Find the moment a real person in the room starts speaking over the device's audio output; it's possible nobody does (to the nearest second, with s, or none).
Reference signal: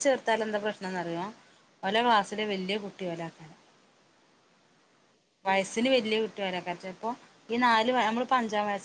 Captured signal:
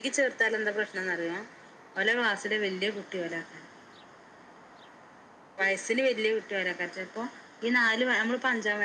none